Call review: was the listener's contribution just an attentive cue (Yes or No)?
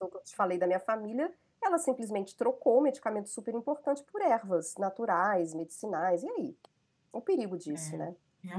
No